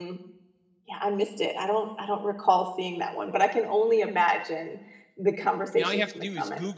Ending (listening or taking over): taking over